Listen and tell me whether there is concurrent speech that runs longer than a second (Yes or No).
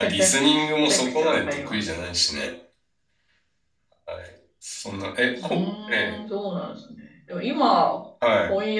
Yes